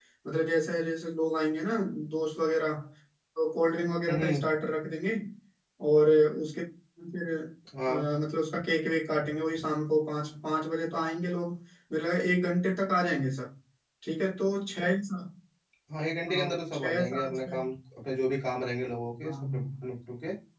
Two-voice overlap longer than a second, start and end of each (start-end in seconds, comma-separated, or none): 16.3-17.6